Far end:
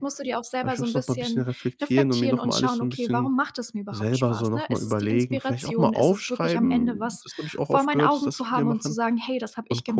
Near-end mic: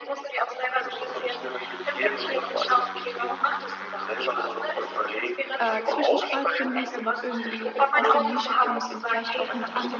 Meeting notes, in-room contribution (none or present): present